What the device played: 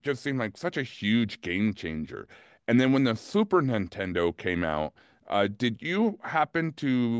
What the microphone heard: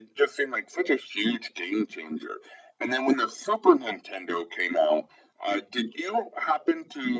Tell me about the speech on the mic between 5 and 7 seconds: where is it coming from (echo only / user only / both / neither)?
echo only